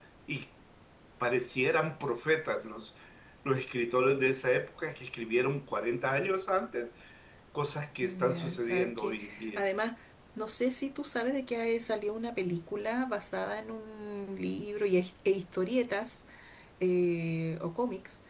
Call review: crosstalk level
present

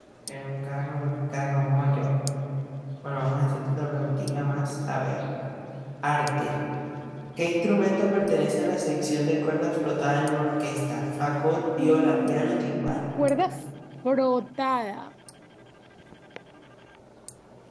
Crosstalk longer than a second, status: present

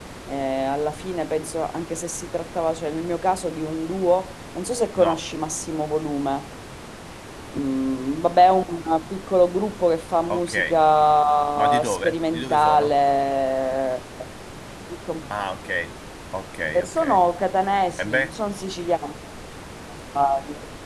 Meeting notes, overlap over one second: present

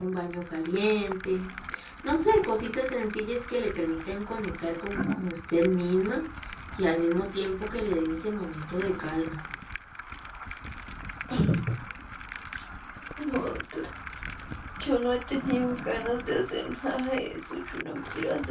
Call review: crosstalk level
none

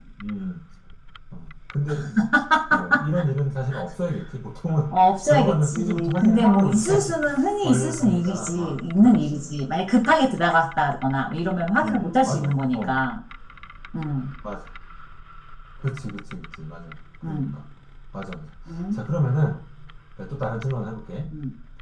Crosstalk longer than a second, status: present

